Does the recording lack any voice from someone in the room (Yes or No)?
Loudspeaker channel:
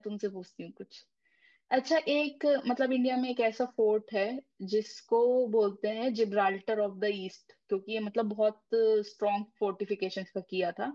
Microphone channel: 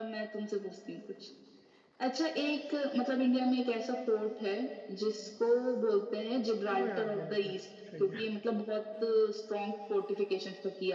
No